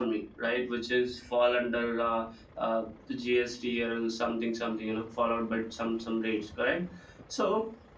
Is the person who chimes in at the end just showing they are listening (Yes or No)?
Yes